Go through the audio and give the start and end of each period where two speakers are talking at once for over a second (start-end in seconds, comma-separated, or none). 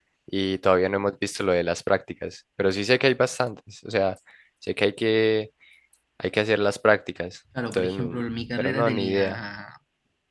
7.7-9.4